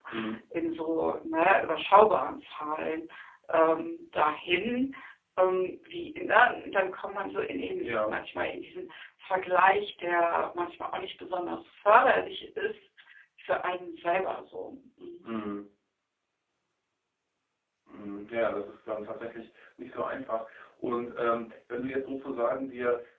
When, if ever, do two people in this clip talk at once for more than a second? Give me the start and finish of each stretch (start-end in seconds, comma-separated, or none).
none